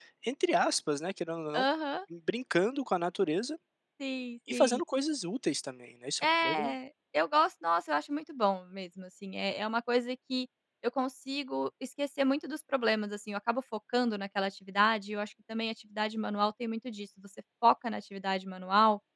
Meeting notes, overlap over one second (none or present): none